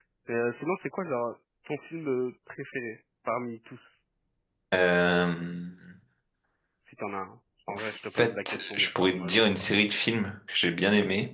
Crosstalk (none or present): present